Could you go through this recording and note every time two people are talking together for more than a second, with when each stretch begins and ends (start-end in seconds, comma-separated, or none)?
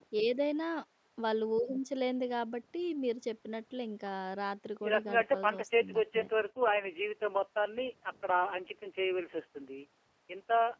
4.8-6.3